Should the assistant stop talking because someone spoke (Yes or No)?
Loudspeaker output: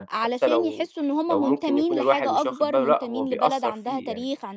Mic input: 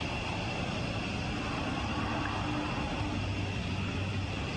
No